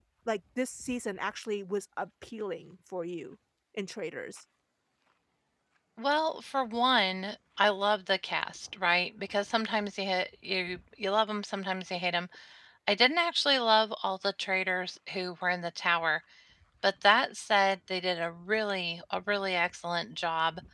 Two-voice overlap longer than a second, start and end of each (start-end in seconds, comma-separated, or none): none